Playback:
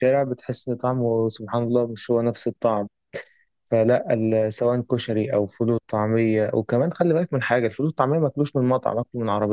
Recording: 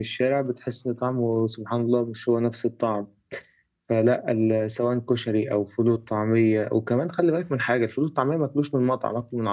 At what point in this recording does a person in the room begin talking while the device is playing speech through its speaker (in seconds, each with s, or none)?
none